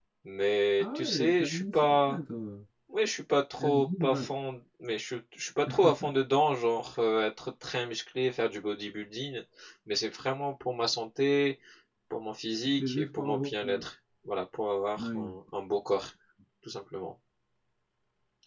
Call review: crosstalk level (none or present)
present